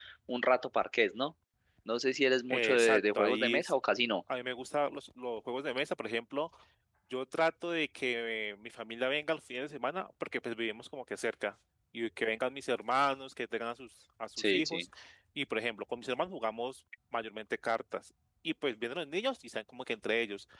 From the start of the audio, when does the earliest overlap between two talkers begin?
2.5 s

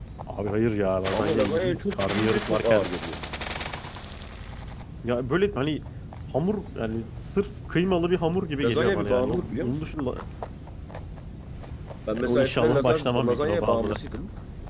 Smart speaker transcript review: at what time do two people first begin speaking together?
1.1 s

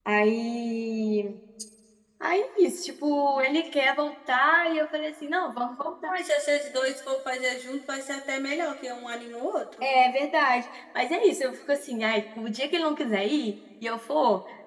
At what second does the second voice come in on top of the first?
none

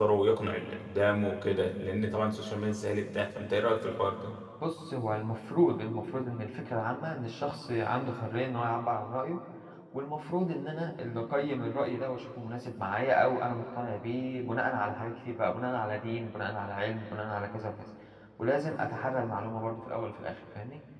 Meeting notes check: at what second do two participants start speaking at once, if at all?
none

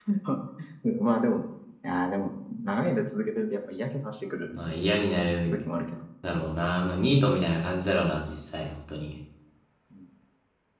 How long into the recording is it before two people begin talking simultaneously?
none

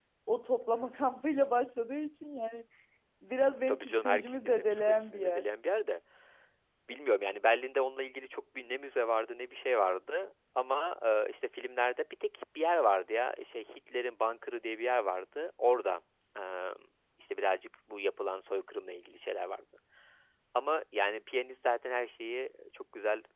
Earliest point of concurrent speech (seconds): 3.7 s

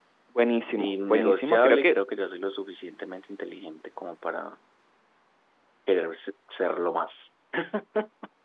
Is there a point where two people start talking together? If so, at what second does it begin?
0.8 s

